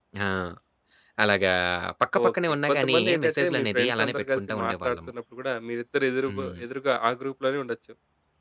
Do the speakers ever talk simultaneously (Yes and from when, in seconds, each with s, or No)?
Yes, from 2.2 s